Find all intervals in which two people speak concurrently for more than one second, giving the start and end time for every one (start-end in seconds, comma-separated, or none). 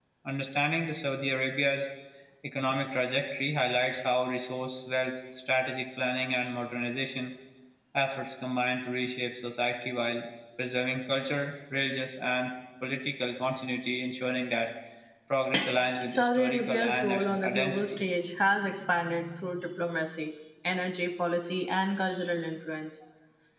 16.1-18.0